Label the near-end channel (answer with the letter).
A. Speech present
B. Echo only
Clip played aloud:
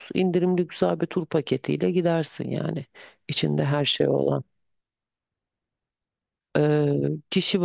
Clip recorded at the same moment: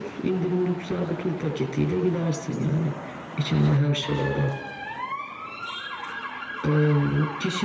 B